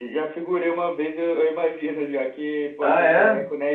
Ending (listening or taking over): listening